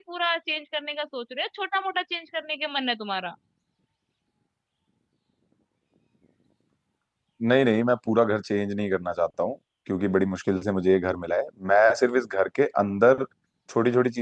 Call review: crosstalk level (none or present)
none